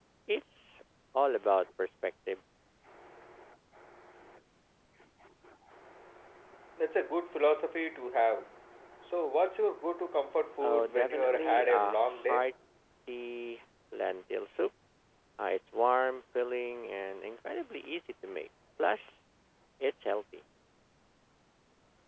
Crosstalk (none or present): present